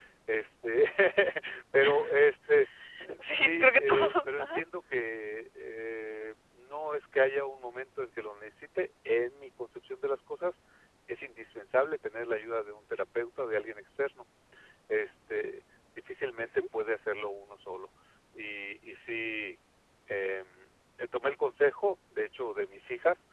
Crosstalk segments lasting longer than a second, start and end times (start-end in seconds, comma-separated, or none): 3.2-4.6